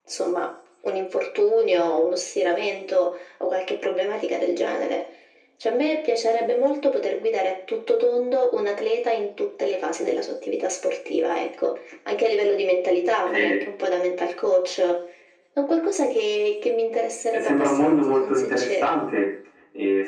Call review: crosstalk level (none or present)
present